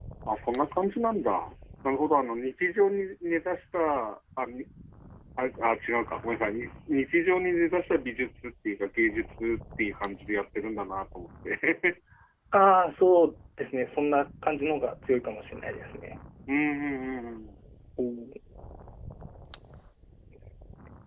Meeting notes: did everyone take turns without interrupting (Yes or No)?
Yes